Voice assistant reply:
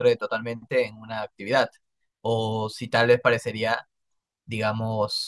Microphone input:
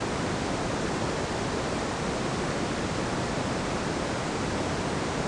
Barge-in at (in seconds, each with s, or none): none